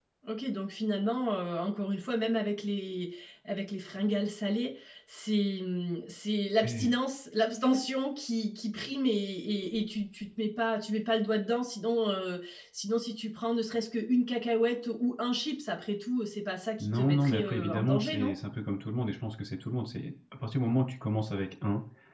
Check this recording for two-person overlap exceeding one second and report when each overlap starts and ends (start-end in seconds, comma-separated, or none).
16.8-18.3